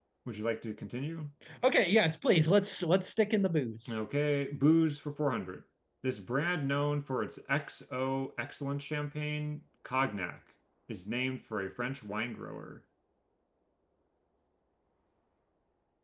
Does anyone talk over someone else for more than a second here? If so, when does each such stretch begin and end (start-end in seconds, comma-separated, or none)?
none